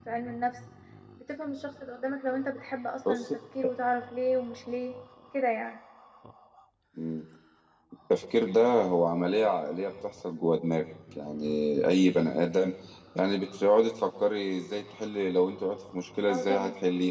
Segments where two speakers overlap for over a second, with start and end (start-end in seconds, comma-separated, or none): none